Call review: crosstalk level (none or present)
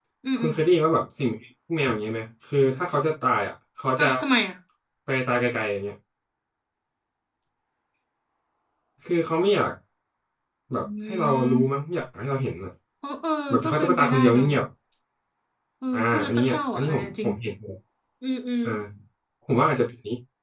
present